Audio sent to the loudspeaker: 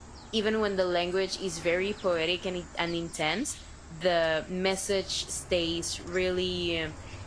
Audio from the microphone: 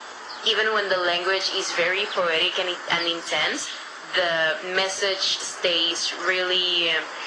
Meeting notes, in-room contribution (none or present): none